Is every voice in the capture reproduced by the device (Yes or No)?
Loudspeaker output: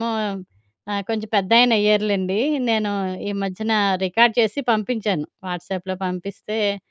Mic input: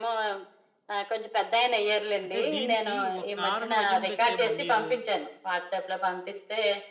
No